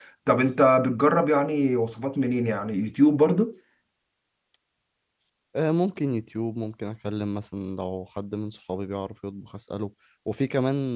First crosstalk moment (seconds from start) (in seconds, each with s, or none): none